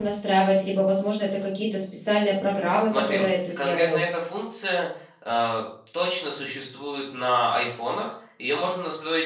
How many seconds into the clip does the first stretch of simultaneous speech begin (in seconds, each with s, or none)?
2.8 s